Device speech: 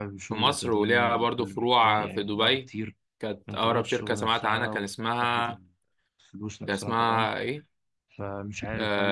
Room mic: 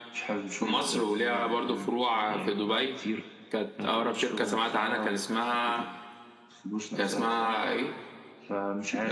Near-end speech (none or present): none